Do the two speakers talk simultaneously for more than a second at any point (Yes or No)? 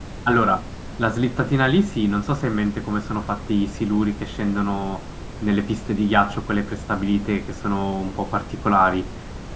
No